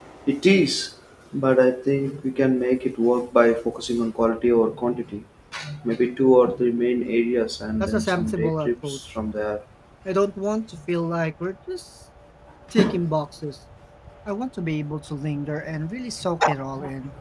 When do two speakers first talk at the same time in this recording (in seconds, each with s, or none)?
7.8 s